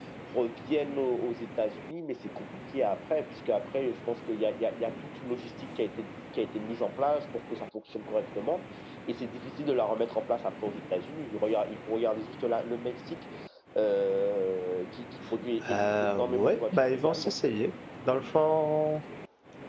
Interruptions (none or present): present